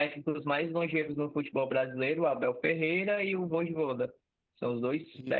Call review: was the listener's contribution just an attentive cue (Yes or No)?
Yes